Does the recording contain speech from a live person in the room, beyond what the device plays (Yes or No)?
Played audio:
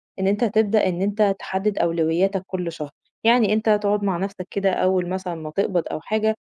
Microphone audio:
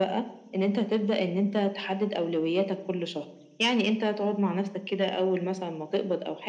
No